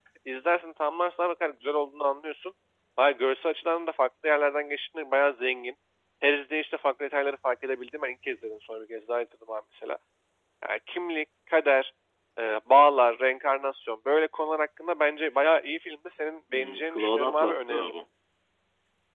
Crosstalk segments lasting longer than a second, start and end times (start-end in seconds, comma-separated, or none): 16.5-17.9